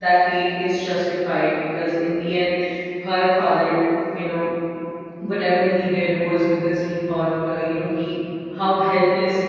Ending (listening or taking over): taking over